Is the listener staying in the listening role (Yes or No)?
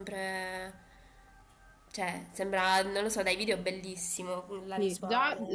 No